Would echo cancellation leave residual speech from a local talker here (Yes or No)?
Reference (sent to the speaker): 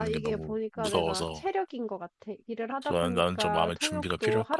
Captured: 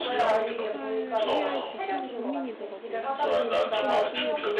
Yes